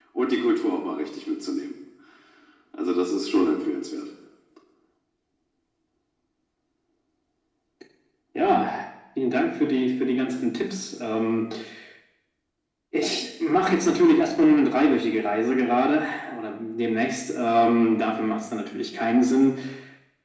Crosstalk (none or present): none